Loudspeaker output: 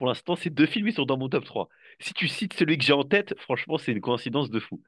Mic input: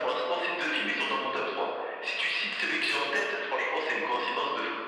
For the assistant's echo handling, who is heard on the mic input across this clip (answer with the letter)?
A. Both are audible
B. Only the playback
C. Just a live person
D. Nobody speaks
B